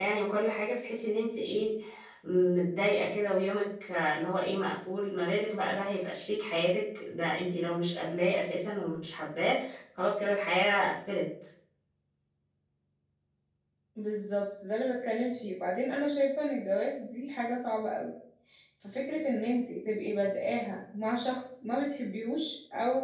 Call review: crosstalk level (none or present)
none